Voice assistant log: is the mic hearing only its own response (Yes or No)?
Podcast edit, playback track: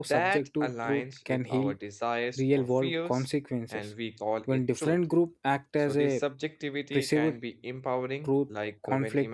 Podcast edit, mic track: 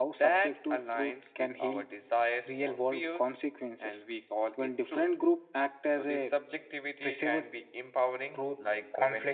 Yes